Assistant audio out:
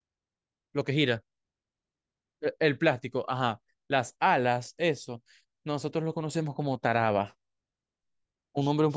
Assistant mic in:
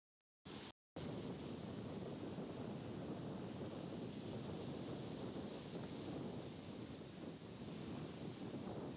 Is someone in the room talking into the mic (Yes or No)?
No